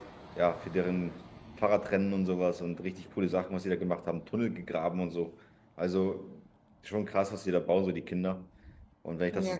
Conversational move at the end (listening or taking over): listening